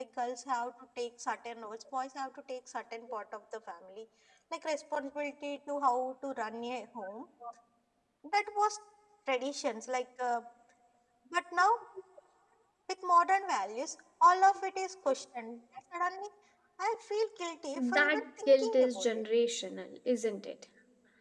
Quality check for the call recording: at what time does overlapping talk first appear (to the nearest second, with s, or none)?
18 s